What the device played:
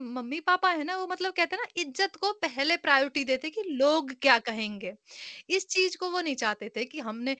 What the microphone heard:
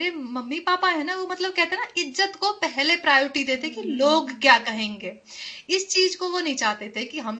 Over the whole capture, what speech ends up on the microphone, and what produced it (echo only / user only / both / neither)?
both